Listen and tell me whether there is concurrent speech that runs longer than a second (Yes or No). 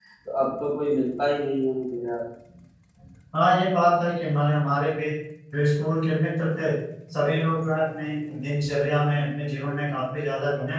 No